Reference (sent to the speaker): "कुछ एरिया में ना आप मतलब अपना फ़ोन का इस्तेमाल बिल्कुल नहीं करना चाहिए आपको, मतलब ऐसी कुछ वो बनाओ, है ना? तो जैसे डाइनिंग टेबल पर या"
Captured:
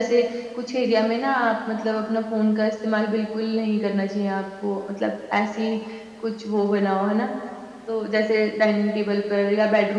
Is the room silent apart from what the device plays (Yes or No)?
Yes